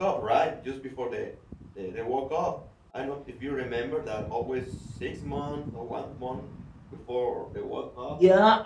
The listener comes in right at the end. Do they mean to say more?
Yes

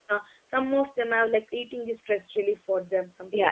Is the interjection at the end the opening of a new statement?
Yes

